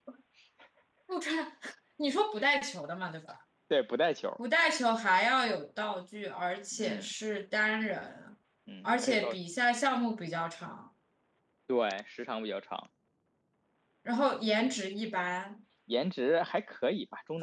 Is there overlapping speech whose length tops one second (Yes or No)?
No